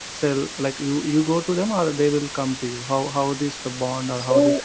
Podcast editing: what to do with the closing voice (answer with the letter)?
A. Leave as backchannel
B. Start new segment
B